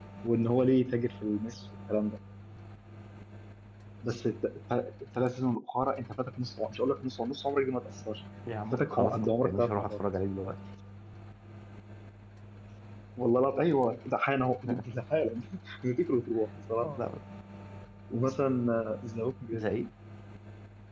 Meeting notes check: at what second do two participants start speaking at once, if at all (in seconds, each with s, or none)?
8.7 s